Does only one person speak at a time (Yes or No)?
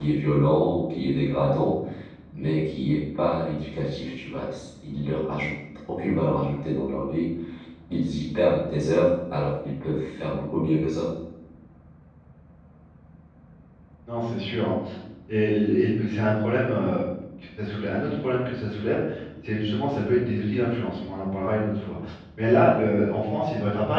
Yes